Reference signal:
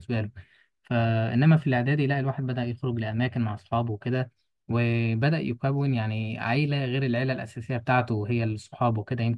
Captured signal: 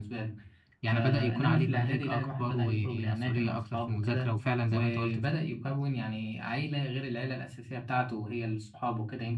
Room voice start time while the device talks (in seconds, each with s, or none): 0.8 s